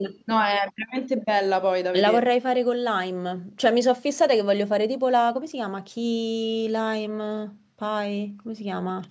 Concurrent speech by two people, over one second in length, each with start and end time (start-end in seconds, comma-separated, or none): none